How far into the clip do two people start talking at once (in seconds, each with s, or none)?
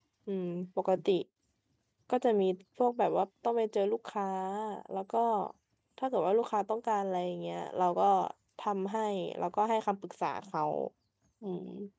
none